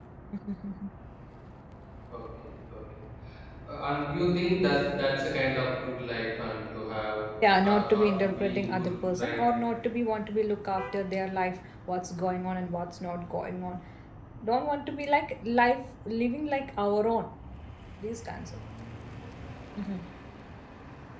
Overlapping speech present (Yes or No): Yes